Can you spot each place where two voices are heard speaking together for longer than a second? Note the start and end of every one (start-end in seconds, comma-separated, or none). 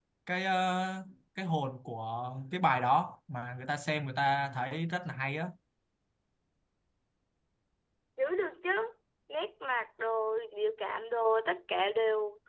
none